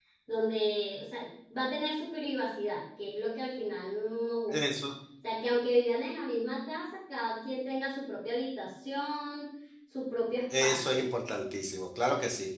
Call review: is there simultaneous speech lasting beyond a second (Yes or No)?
No